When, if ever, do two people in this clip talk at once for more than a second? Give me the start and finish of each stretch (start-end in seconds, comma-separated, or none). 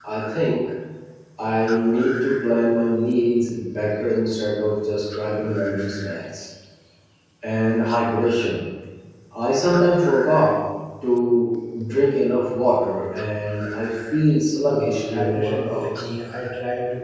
14.7-16.1